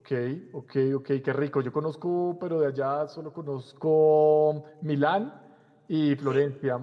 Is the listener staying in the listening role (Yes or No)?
Yes